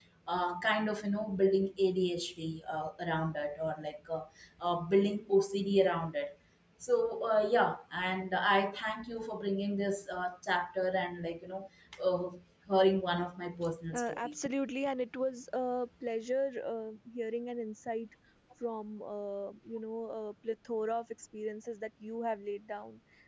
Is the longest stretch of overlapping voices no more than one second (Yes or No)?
Yes